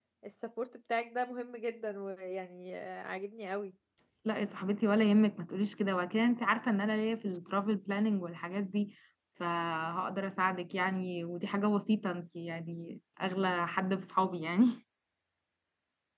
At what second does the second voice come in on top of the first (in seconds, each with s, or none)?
none